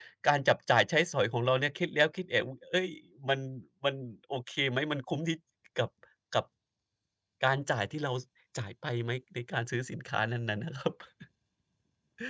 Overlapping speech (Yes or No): No